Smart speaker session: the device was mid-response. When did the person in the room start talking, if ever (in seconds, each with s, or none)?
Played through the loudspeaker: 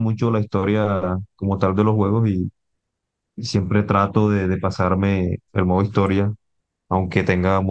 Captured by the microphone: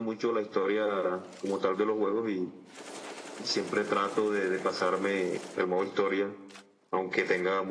none